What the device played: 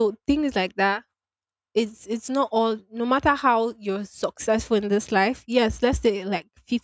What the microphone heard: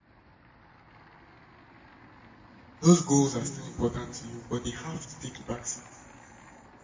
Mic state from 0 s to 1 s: neither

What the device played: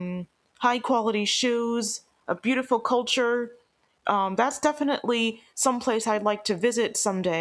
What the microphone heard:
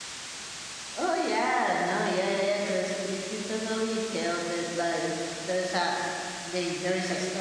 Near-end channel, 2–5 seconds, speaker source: user only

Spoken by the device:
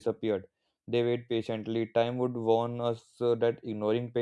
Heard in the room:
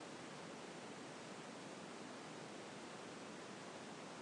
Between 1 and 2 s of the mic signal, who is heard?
neither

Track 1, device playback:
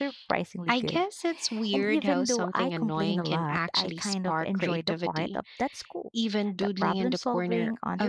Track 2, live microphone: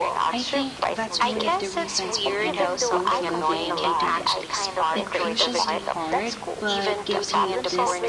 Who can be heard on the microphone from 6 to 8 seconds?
both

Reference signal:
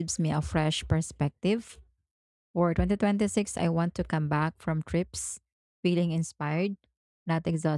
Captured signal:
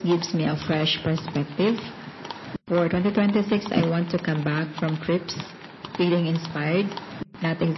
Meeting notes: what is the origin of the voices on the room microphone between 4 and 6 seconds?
echo only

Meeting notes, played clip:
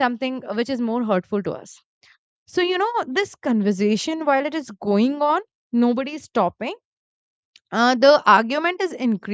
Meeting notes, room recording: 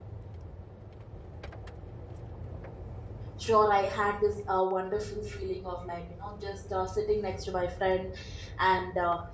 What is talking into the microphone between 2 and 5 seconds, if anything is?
user only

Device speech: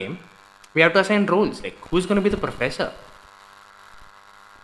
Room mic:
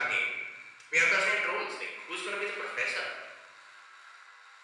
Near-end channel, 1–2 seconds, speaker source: echo only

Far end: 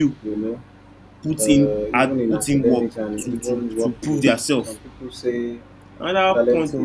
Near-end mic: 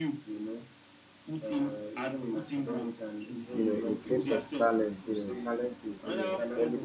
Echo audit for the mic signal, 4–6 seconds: both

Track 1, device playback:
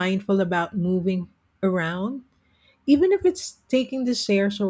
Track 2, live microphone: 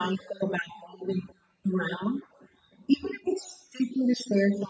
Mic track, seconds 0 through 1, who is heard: echo only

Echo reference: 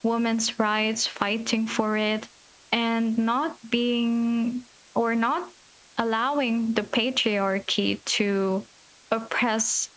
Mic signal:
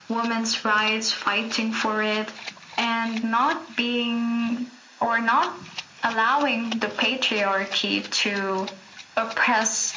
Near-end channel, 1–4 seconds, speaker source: echo only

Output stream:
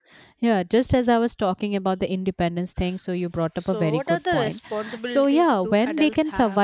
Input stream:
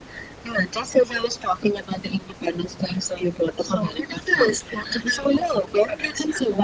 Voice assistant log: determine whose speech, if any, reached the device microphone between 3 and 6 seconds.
echo only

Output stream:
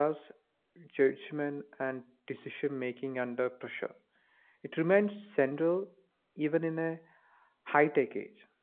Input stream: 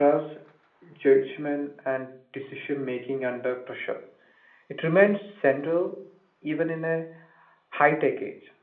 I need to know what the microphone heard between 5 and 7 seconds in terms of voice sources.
echo only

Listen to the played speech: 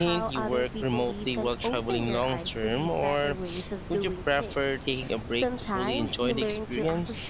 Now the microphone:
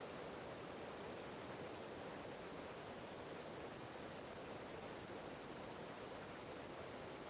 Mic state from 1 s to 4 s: neither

